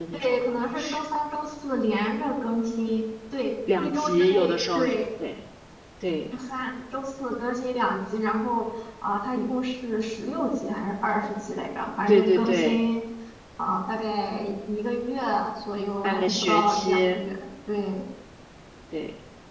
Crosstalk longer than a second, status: present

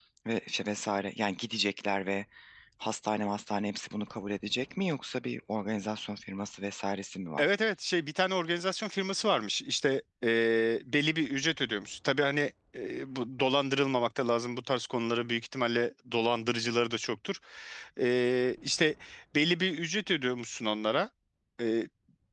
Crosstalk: none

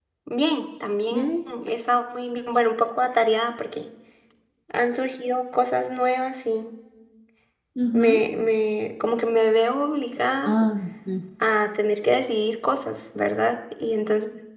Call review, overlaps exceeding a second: none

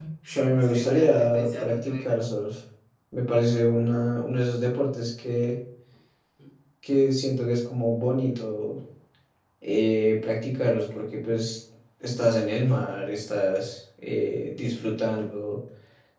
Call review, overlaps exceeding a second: present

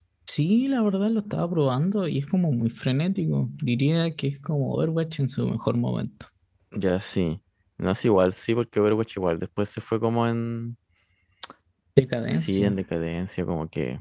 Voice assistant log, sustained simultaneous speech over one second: none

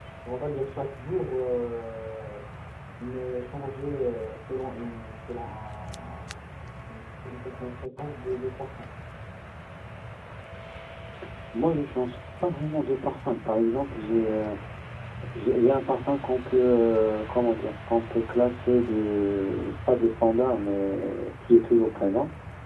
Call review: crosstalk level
none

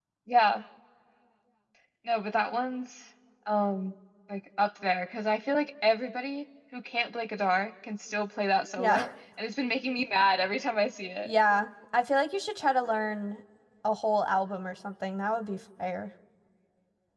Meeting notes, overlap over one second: none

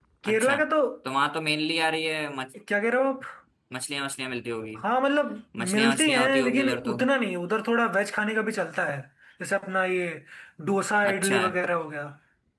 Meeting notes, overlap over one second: present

